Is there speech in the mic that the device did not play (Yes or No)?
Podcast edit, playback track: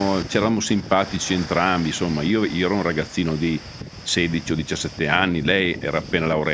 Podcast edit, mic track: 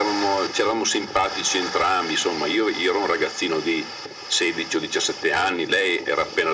No